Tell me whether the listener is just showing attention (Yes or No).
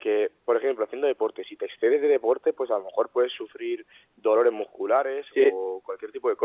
Yes